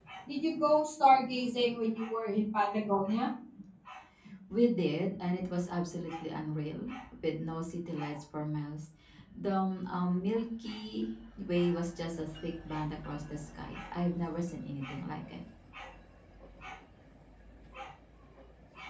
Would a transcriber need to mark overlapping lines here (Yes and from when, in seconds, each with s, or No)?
No